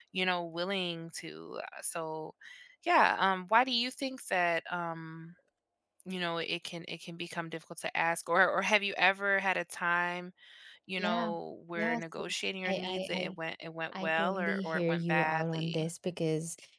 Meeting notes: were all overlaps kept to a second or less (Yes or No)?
No